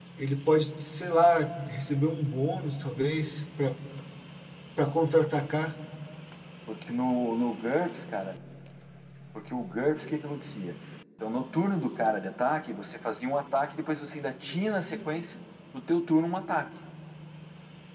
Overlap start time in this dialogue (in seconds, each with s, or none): none